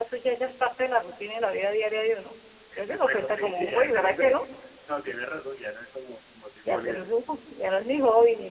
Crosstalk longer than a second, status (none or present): present